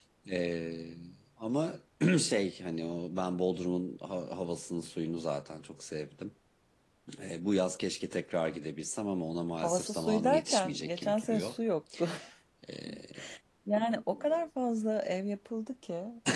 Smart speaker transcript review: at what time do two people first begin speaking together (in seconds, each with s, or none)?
9.6 s